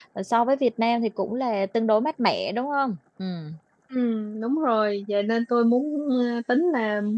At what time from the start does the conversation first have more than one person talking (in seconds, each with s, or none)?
none